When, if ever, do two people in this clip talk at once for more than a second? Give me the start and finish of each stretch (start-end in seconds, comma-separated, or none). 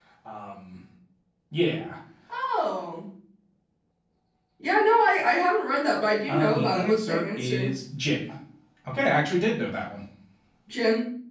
6.3-7.7